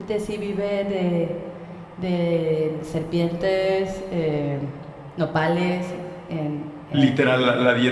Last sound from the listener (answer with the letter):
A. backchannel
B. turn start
B